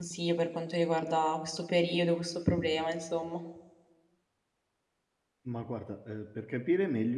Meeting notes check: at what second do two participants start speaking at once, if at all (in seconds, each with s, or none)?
none